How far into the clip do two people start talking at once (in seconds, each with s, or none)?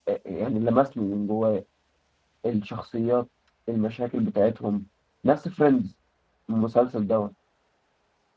none